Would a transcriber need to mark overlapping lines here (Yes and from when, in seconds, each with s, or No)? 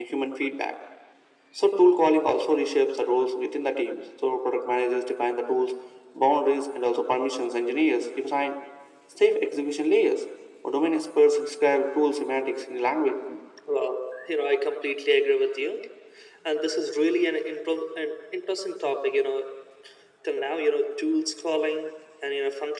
No